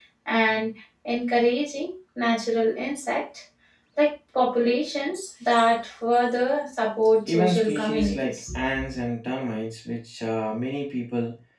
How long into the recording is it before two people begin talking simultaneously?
7.3 s

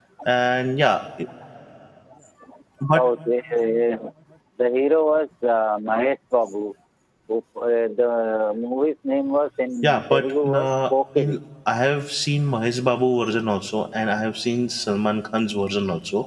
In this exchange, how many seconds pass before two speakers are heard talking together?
10.1 s

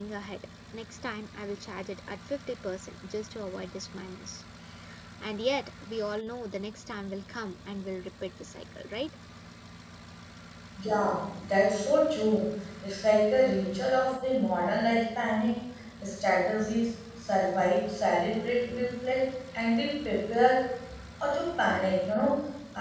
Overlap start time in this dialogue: none

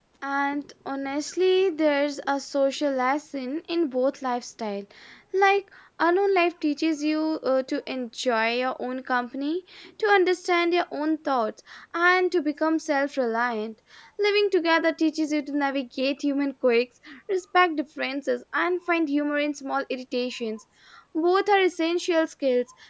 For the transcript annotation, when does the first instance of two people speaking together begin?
none

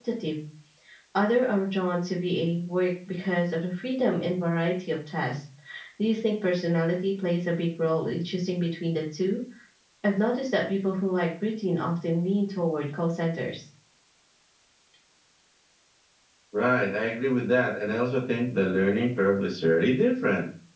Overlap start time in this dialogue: none

